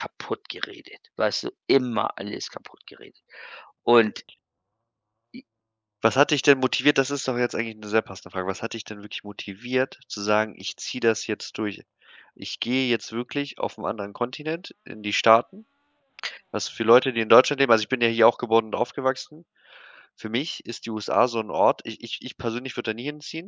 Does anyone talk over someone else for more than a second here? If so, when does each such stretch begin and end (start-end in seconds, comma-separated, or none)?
none